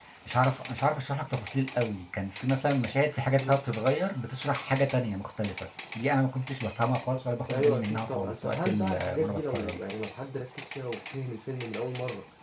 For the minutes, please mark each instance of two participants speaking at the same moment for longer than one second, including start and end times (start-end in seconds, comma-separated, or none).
7.5-9.8